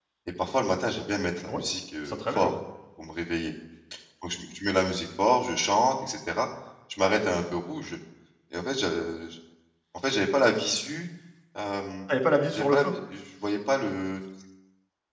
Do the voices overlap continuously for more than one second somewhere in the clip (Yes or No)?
No